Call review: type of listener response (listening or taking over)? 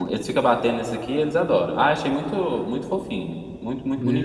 taking over